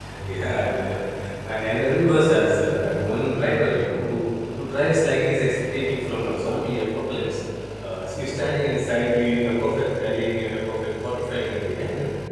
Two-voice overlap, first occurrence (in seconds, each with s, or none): none